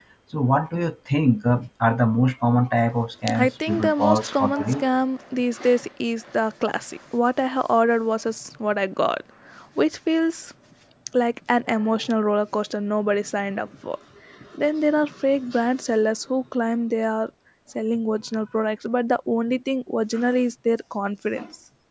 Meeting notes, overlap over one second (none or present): present